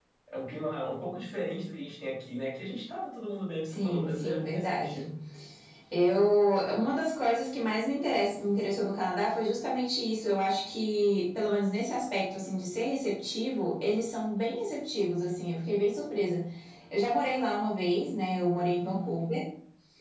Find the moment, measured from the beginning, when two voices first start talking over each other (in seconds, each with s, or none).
3.7 s